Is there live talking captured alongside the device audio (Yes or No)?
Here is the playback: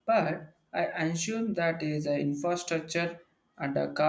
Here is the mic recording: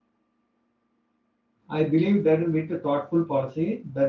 Yes